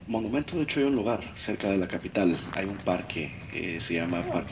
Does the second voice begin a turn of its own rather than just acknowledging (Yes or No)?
No